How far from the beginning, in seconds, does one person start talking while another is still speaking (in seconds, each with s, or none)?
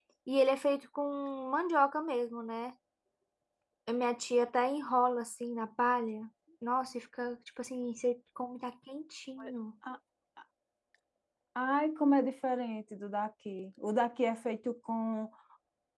none